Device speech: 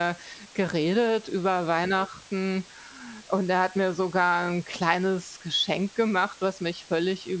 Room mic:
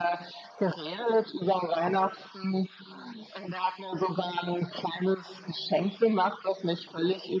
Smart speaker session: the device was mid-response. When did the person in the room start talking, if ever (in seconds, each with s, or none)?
none